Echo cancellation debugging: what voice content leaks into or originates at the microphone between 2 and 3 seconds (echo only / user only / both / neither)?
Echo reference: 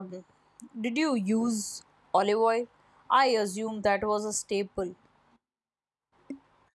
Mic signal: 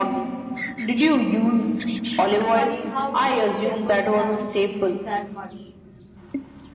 both